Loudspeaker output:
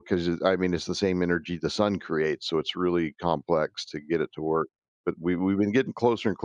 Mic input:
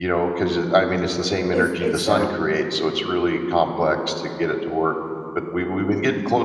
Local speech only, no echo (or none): It's it's not